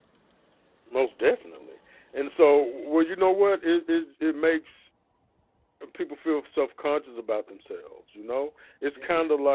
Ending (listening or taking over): listening